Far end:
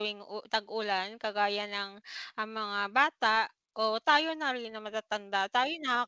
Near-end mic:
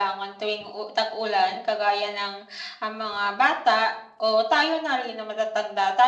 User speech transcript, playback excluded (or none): none